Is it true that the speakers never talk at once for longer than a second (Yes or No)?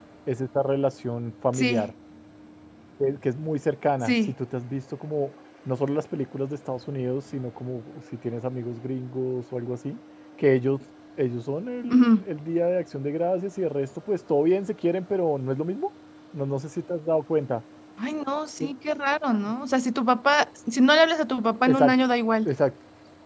Yes